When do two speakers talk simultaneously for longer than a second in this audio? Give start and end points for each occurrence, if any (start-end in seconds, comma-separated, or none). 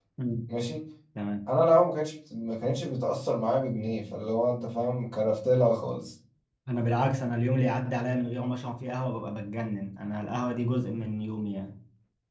none